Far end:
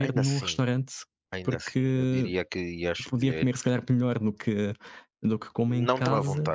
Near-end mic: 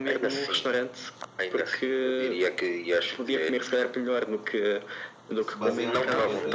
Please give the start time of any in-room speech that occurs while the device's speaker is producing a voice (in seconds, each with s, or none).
5.4 s